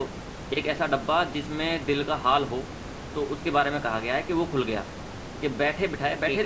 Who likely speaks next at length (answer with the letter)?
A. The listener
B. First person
B